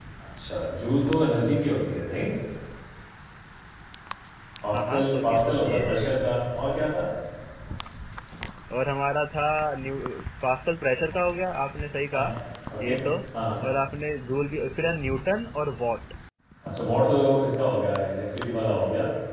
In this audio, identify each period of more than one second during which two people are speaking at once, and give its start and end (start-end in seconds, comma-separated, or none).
4.7-6.2